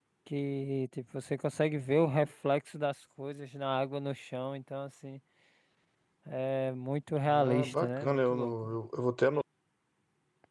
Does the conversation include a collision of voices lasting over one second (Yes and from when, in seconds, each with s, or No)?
Yes, from 7.3 s